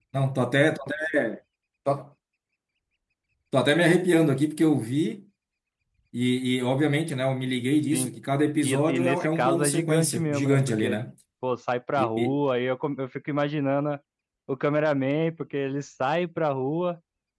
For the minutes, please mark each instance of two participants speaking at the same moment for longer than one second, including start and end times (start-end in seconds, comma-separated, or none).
8.6-11.0